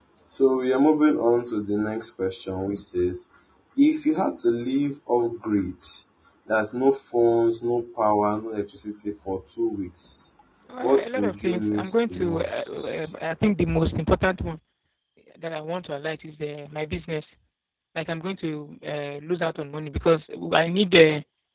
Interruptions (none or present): present